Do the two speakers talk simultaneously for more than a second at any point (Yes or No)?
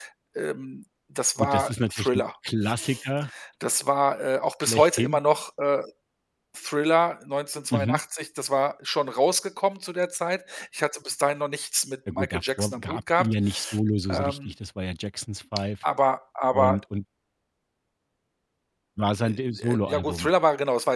Yes